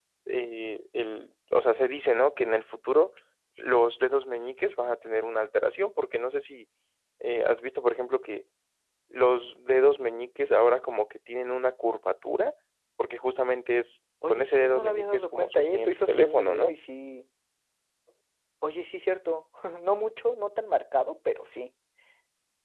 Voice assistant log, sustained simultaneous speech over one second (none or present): present